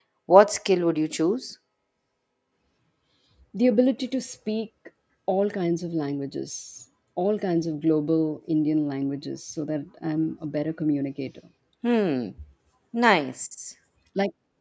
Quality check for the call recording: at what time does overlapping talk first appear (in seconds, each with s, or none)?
none